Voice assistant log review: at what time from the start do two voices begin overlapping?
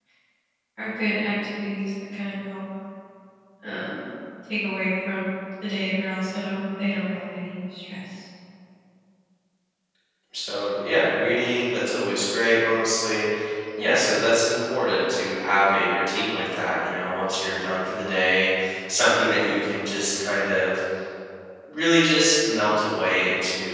none

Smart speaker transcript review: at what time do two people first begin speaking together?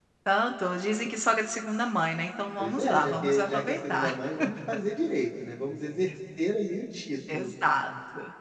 2.6 s

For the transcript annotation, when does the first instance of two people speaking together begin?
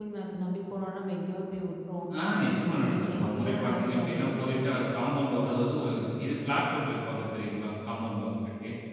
2.6 s

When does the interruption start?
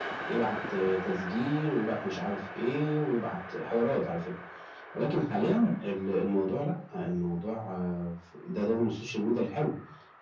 none

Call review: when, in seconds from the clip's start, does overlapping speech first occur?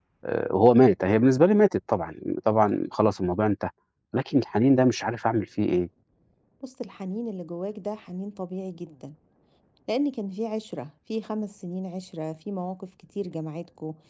none

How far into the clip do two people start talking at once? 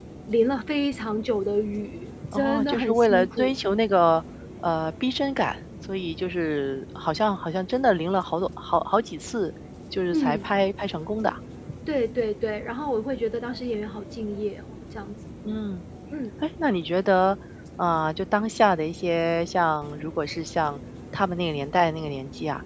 2.3 s

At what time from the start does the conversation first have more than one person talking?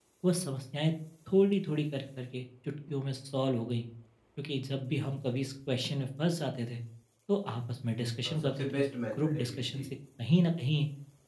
8.2 s

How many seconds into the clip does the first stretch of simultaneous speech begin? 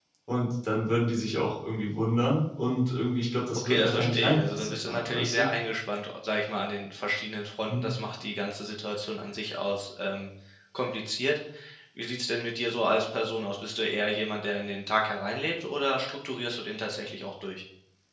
3.5 s

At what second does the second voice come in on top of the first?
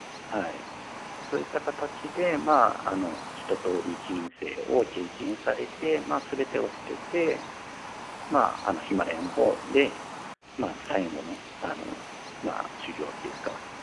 none

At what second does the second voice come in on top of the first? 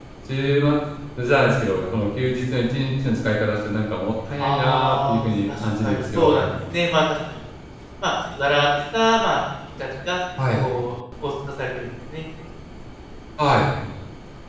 4.4 s

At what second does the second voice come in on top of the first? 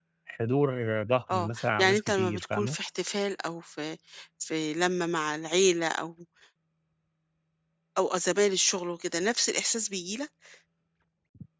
1.3 s

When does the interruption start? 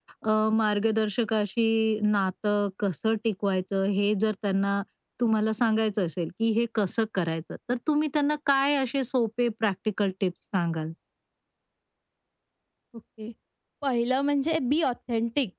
none

